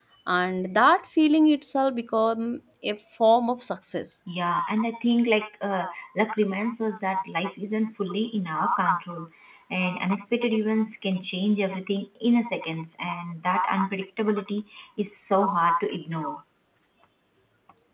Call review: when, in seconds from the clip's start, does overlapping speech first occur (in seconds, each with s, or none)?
none